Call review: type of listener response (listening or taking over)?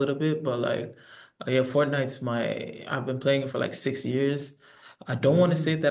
listening